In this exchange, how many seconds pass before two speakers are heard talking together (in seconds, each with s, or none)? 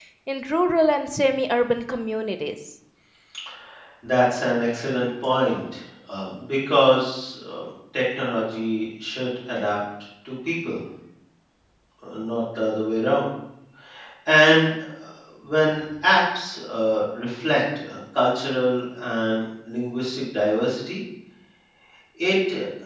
none